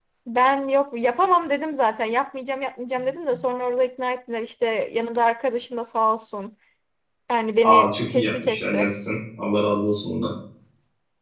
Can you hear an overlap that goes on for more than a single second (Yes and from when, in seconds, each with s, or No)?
Yes, from 7.6 s